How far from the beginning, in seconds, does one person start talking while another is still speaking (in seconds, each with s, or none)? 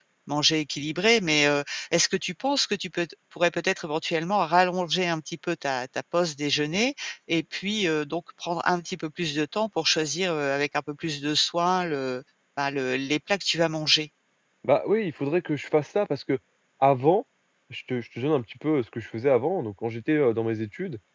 none